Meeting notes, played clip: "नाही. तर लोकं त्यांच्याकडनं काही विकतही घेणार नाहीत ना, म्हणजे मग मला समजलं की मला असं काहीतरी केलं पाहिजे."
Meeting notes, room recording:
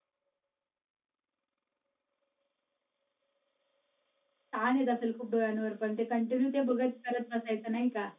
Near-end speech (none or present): present